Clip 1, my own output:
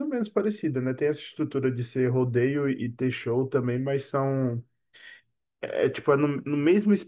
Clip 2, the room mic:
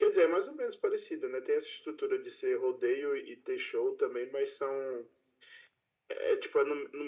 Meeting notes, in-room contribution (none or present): none